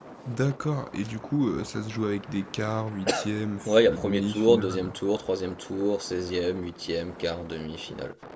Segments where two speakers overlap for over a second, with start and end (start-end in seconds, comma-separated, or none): 3.6-4.9